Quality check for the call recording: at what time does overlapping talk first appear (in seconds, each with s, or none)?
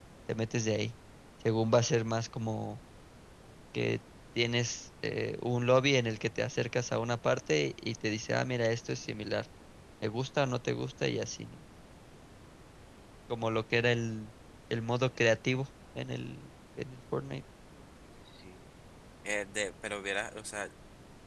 none